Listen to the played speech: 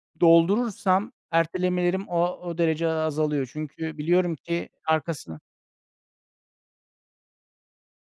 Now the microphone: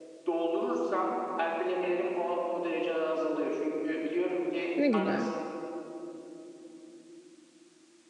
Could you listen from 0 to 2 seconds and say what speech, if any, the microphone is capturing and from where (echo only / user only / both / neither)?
echo only